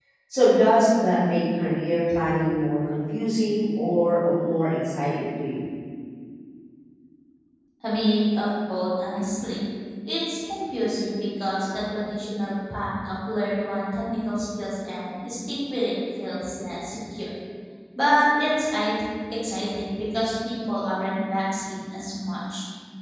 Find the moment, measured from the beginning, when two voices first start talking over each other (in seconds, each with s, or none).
none